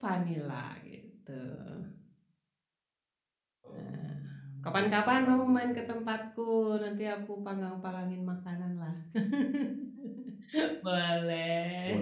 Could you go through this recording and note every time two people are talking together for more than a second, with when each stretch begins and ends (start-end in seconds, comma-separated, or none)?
4.7-6.0